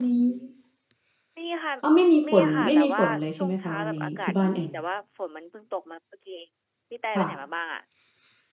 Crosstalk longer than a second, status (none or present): present